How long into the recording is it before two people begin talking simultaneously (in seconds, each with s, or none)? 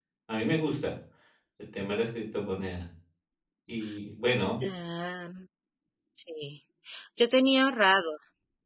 none